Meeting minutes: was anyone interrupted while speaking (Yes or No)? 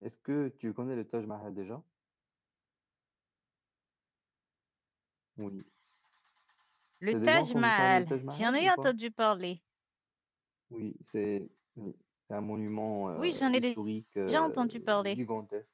Yes